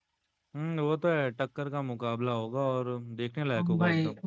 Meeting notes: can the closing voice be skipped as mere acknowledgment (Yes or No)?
No